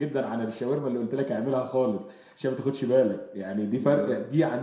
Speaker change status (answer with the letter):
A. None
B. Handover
A